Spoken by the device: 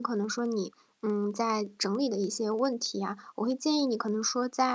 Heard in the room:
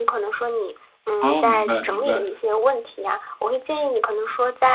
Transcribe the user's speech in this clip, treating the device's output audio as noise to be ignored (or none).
哦，明白明白。